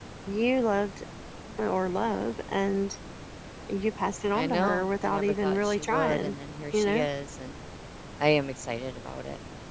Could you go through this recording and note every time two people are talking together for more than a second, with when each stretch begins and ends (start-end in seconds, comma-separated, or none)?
4.3-6.3